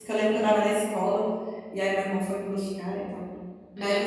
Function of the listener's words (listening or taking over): listening